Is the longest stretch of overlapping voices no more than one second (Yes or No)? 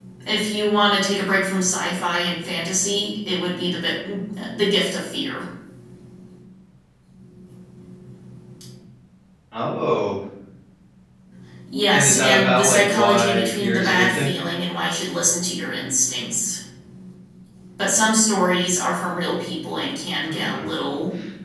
No